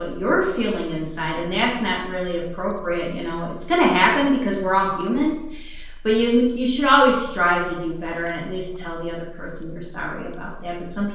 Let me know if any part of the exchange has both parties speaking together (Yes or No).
No